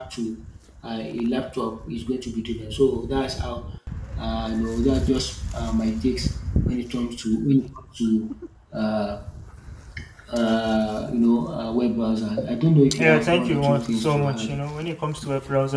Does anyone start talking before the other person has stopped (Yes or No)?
Yes